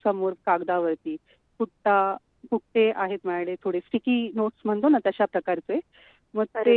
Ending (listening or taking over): listening